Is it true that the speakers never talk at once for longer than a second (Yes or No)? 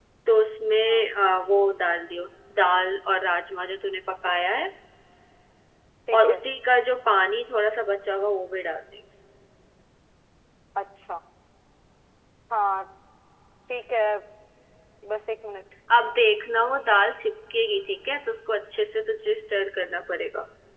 Yes